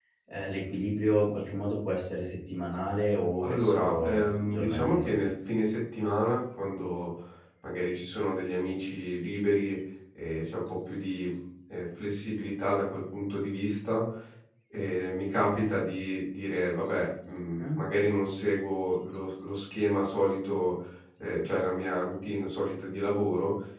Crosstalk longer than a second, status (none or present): present